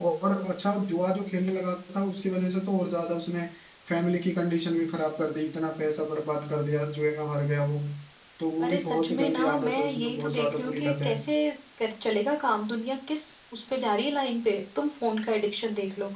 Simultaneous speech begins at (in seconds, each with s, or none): 8.6 s